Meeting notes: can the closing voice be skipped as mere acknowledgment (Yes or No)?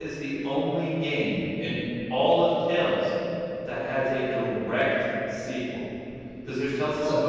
Yes